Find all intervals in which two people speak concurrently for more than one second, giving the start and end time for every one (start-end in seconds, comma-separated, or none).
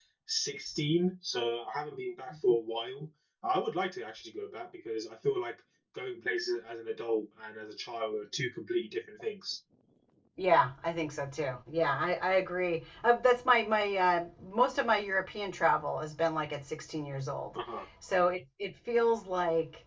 none